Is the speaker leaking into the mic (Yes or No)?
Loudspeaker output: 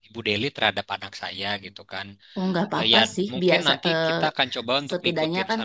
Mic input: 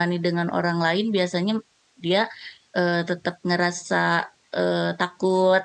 No